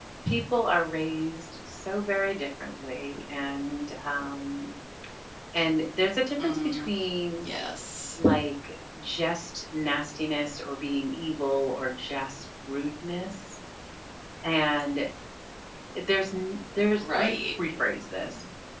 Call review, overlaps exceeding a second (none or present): none